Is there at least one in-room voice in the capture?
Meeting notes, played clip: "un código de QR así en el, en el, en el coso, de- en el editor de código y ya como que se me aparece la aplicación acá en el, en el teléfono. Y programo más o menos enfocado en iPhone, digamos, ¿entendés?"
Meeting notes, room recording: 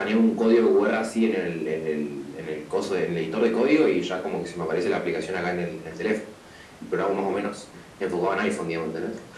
No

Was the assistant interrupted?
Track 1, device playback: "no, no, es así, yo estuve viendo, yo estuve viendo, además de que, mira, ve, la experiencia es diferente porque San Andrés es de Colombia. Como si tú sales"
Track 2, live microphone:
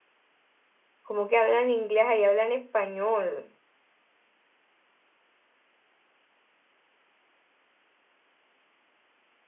Yes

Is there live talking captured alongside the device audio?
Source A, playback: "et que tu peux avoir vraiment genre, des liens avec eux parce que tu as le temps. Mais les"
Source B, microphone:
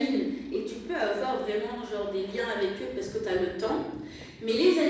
No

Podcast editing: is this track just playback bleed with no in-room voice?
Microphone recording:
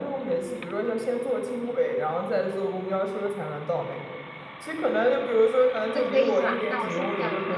No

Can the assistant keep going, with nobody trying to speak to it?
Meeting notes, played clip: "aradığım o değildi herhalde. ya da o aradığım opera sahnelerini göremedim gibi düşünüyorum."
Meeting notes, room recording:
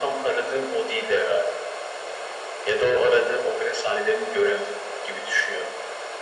Yes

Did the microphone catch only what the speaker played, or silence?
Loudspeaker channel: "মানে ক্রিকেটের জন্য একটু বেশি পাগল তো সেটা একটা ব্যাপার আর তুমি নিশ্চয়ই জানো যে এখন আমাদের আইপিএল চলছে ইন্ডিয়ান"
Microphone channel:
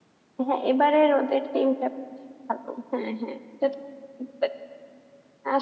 No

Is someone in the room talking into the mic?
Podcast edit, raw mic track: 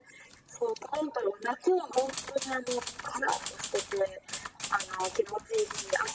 No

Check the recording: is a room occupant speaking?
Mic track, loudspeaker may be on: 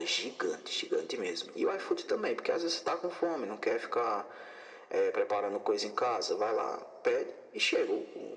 No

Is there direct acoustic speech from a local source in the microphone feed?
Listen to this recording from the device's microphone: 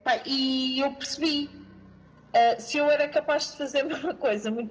No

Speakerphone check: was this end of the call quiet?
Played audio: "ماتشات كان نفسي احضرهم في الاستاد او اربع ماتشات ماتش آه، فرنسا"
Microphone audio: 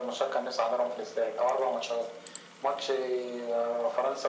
Yes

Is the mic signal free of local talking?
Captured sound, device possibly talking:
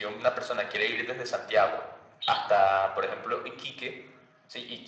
Yes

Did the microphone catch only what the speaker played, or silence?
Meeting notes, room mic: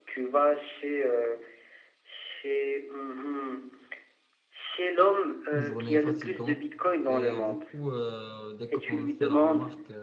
No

